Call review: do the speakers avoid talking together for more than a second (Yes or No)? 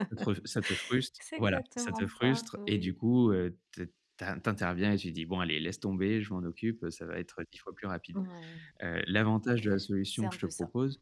No